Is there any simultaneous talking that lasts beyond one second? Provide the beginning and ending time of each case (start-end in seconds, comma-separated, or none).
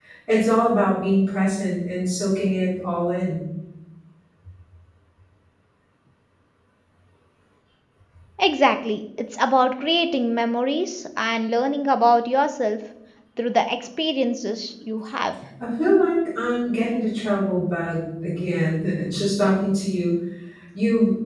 none